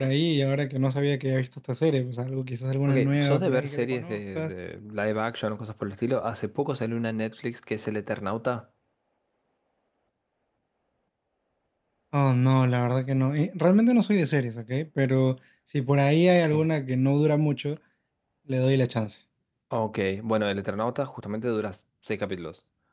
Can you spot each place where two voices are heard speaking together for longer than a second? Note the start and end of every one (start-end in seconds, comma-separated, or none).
2.9-4.5